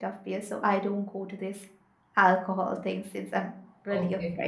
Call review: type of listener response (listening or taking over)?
taking over